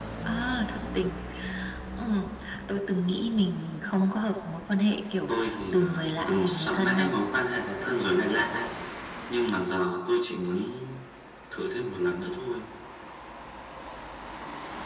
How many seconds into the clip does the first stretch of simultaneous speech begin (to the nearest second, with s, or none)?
6 s